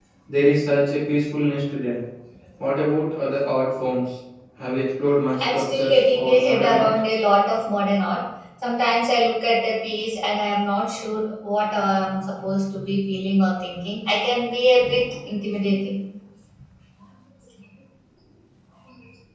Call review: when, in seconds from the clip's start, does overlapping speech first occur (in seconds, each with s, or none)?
5.3 s